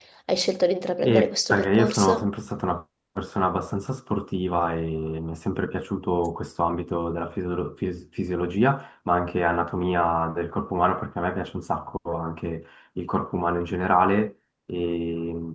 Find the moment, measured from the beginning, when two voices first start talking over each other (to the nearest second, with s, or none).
1 s